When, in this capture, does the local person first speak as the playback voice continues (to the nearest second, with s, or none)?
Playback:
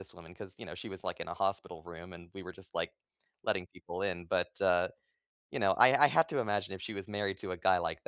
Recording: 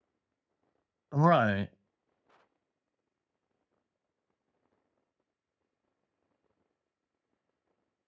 1 s